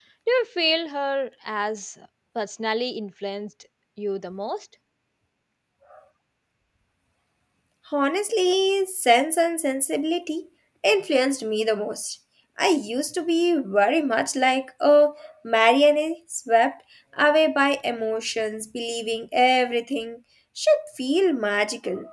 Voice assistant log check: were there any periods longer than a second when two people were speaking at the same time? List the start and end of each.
none

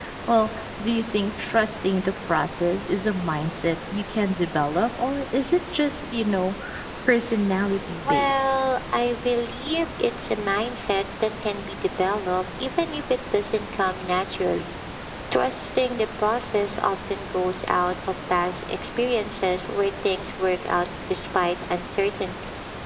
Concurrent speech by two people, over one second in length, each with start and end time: none

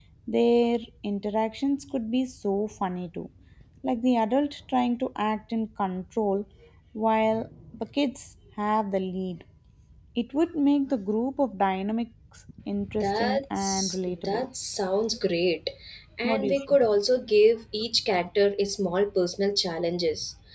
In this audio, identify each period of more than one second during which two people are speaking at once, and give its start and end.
13.0-14.5

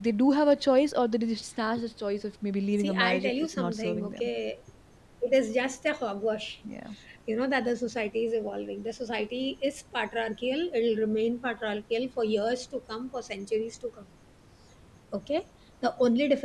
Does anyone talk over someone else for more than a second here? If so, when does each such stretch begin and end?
2.8-4.3

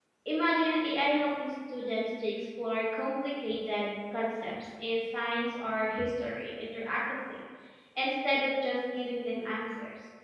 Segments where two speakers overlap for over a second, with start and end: none

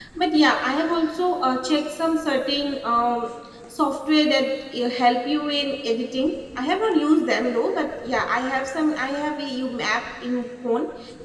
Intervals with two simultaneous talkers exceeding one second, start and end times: none

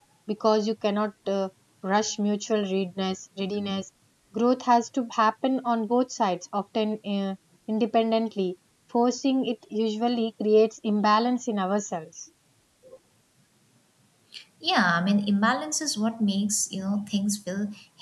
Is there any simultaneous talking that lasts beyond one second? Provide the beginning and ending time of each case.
none

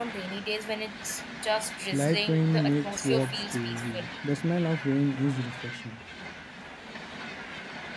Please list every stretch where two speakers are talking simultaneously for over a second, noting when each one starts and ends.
1.9-4.1

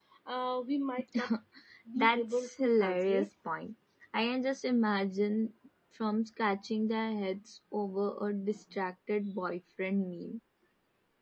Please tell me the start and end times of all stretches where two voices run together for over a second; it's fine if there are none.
2.0-3.3

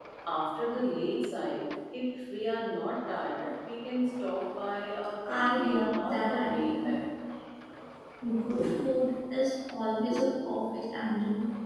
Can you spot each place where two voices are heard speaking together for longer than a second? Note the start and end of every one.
5.3-6.9

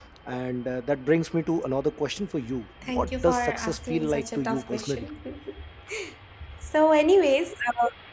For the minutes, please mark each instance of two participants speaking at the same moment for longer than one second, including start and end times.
2.8-5.1

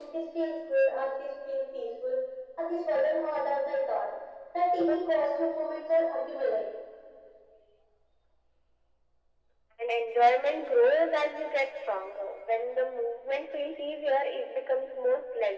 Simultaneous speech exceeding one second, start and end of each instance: none

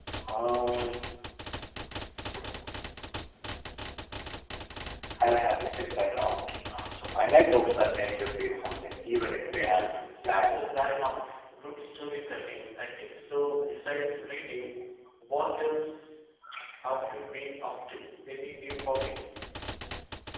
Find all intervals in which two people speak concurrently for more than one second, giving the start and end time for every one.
9.4-10.6

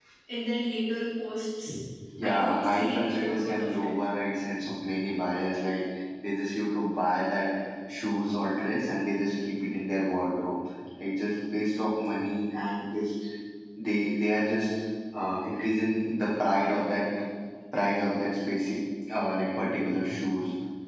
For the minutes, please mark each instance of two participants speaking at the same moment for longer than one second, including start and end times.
2.2-4.0

